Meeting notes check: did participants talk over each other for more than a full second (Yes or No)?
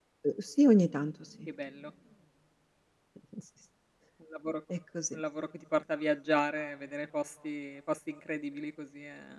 No